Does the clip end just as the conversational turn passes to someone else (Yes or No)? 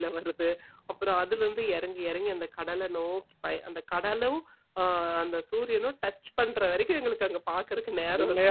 Yes